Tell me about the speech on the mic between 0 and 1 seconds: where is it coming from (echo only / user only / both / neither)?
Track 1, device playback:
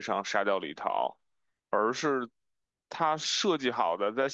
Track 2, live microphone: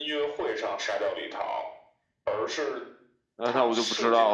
echo only